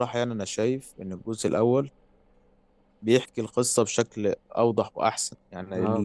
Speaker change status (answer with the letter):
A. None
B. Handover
B